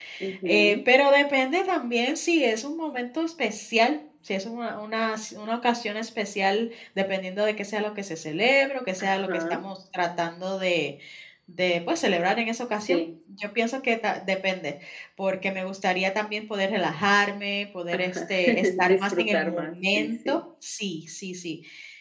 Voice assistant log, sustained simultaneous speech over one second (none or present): present